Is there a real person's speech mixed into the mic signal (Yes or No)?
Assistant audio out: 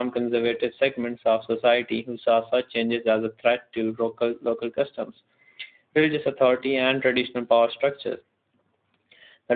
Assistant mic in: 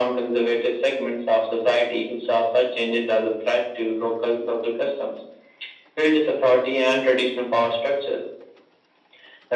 No